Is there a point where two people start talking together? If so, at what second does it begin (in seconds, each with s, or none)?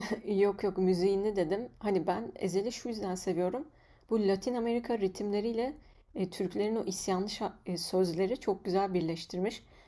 none